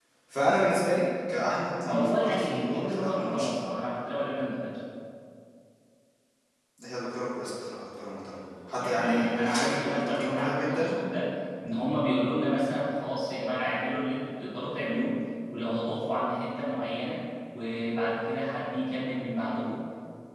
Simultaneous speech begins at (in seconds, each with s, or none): 1.8 s